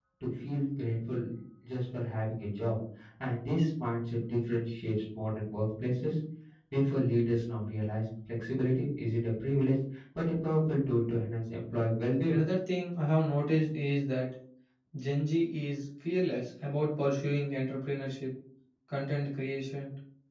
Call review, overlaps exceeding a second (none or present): none